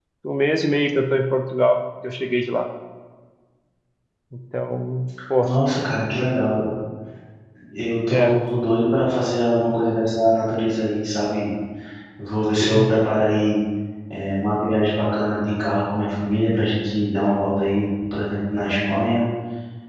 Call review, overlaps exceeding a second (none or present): none